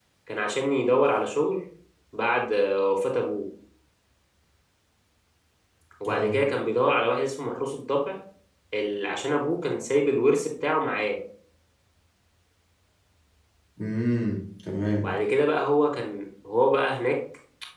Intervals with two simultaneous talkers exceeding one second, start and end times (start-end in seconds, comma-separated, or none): none